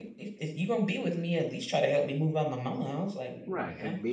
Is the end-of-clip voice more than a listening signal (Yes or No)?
Yes